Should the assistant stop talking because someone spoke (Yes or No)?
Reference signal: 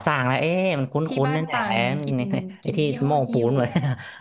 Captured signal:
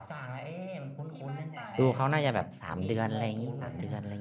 Yes